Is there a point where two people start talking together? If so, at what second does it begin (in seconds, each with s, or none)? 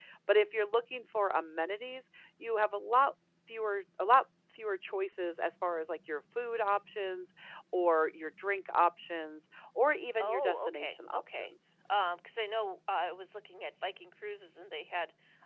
10.1 s